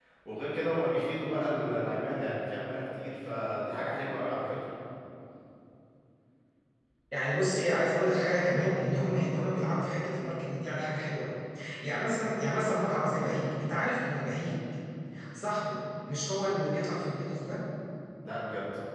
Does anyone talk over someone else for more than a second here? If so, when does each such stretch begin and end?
none

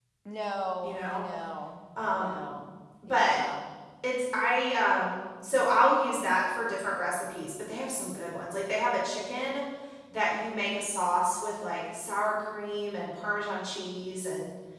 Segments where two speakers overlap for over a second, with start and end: none

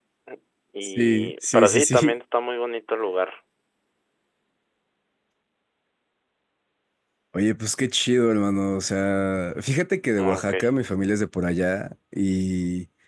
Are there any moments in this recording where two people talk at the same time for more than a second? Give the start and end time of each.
0.8-2.1

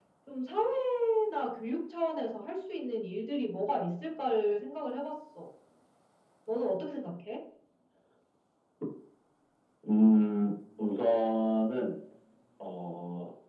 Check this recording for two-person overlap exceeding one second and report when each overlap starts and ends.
none

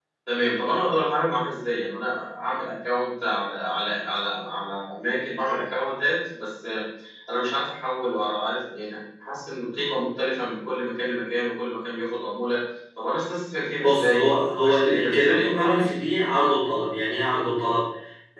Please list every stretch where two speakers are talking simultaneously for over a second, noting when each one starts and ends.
13.8-15.9

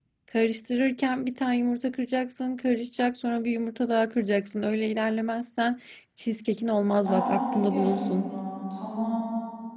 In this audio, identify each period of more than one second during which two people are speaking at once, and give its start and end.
7.0-8.3

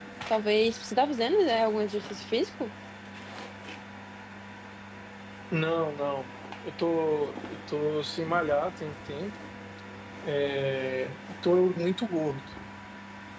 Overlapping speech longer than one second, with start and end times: none

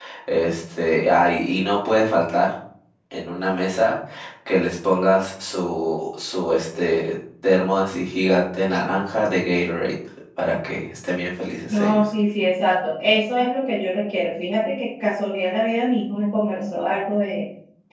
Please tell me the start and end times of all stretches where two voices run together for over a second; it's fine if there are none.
none

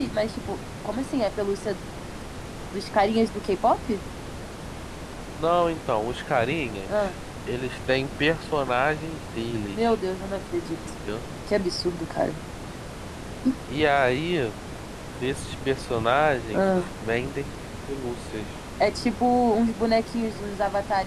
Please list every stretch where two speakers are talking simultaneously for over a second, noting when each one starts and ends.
none

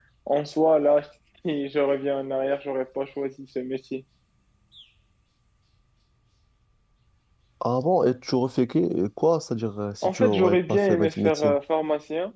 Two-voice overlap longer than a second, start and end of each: 10.0-11.6

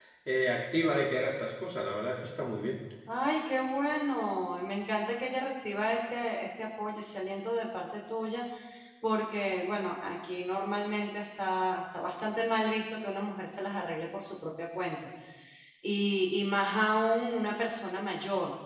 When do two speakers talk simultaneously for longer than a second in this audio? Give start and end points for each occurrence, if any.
none

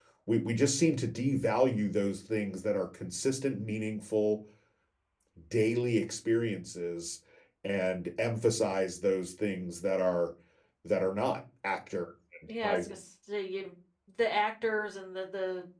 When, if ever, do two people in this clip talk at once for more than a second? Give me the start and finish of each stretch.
none

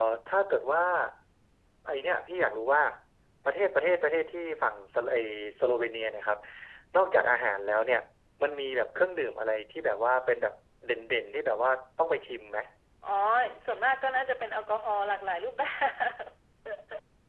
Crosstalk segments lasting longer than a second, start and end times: none

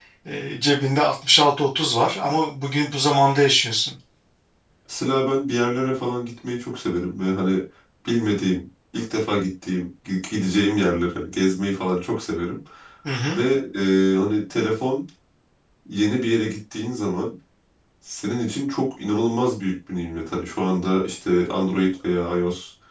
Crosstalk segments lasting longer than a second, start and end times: none

